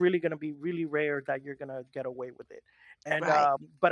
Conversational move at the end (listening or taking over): listening